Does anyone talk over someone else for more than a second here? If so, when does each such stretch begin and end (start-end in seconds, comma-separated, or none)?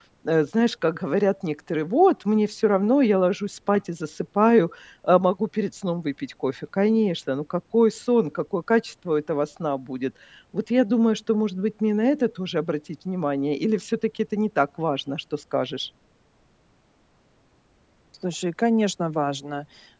none